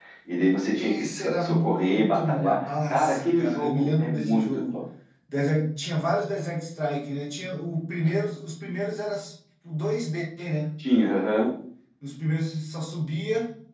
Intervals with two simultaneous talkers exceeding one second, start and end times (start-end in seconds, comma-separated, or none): 0.7-4.6